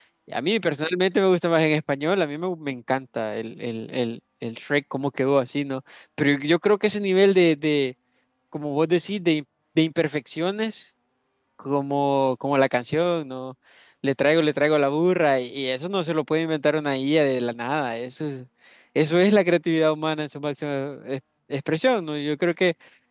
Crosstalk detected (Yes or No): No